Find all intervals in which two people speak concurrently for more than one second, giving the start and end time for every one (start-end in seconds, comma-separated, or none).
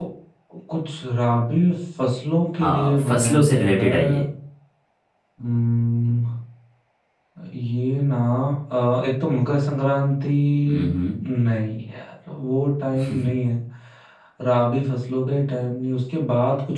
2.6-4.2